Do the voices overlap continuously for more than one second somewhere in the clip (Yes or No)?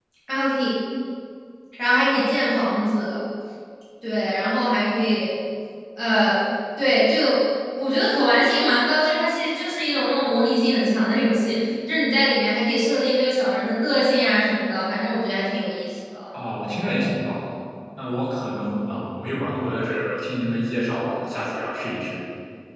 No